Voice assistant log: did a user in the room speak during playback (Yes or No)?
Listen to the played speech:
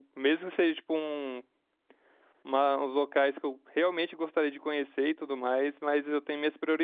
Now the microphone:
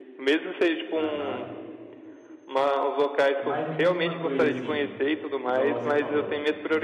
Yes